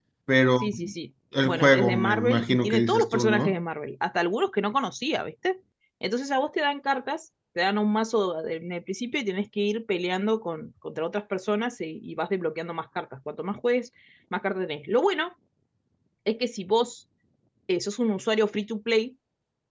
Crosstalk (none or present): present